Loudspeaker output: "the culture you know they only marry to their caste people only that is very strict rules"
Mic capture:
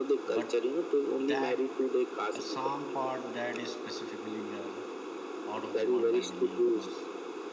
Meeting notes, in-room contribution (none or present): present